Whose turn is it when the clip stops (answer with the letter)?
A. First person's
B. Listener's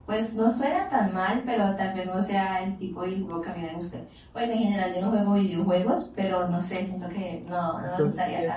B